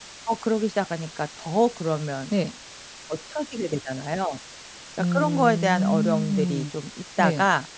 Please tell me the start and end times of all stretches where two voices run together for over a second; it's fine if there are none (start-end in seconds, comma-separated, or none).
5.0-6.6